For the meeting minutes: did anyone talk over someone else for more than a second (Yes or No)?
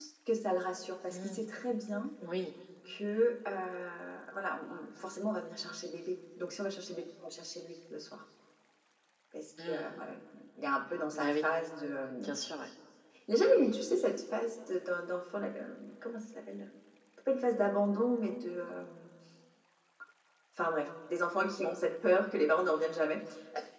No